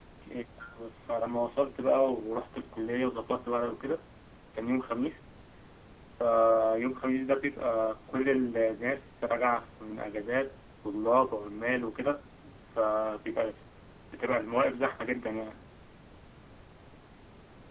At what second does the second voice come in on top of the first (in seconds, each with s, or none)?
none